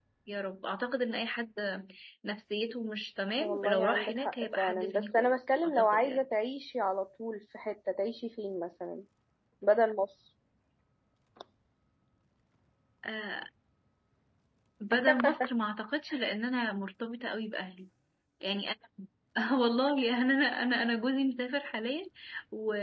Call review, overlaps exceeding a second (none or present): present